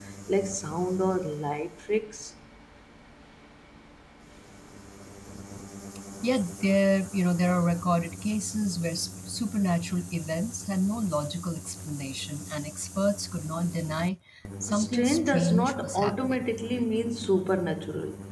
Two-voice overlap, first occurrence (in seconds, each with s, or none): 14.7 s